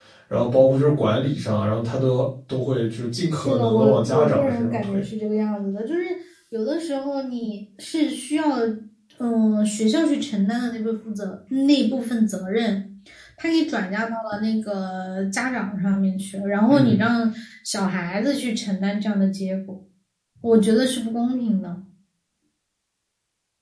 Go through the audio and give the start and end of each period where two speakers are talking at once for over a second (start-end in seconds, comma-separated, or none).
3.3-5.0